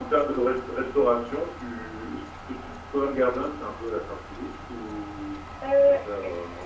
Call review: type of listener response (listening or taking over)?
taking over